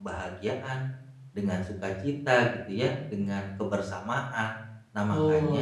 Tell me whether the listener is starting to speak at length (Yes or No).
Yes